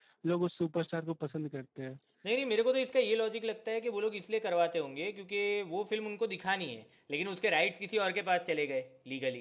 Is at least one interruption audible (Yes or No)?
No